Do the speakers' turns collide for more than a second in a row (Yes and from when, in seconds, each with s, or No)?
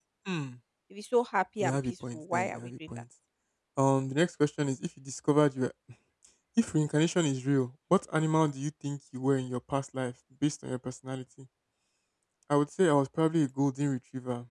Yes, from 1.6 s